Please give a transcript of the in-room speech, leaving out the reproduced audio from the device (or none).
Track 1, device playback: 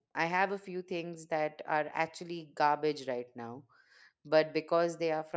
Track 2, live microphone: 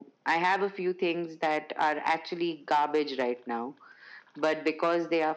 none